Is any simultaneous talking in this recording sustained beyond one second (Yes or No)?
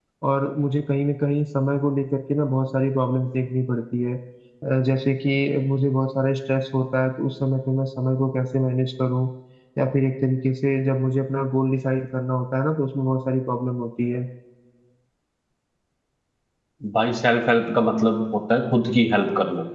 No